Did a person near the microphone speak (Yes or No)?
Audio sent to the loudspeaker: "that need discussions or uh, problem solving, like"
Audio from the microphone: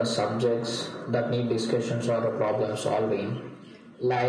No